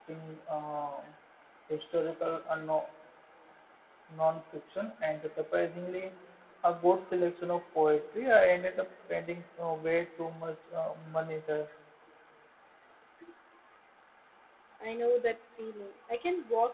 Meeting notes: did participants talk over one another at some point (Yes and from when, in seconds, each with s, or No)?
No